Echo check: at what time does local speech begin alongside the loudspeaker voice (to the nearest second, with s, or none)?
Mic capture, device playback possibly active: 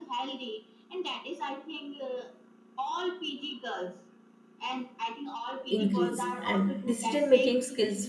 6 s